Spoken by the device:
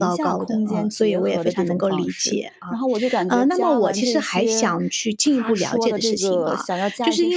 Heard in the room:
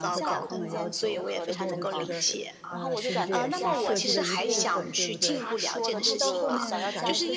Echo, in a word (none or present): present